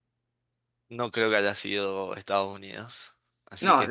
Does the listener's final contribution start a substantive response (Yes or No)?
No